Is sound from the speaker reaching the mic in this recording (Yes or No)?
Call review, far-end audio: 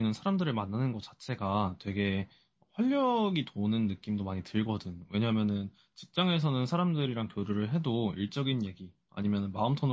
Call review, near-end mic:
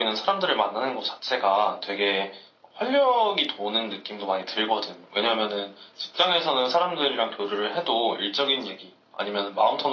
Yes